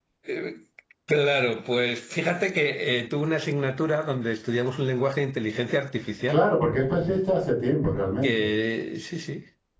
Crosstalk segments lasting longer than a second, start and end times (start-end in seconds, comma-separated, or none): none